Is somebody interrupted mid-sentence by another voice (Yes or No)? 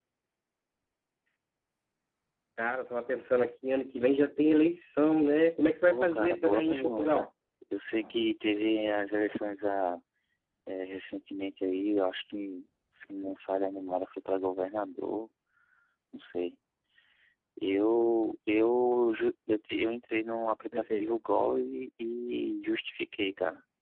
Yes